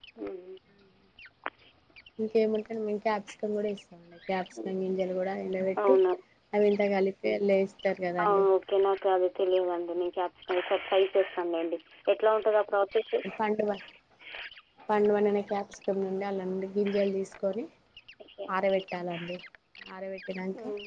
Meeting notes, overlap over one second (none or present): none